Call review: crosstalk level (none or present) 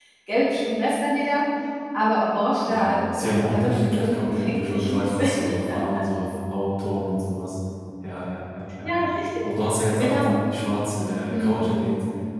present